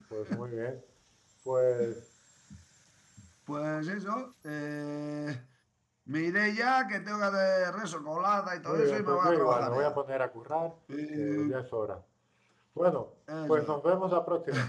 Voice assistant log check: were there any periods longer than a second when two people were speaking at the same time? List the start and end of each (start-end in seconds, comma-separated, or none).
8.7-10.0